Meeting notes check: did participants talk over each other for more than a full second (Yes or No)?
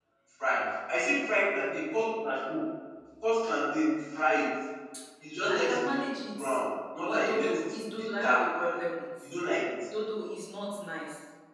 Yes